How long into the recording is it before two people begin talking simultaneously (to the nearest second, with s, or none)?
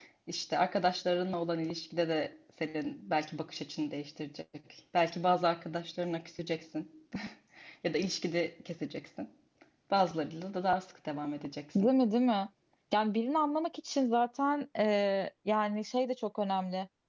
none